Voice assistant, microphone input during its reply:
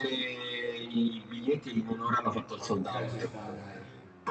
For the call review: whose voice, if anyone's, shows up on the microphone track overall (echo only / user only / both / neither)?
both